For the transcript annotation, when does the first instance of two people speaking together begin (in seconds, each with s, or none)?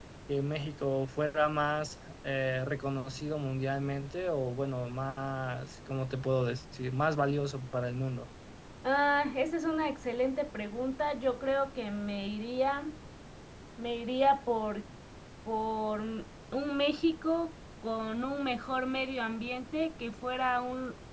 none